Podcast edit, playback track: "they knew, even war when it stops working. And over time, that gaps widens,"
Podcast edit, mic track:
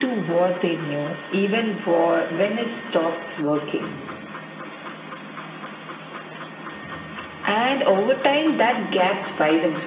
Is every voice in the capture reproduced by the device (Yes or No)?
Yes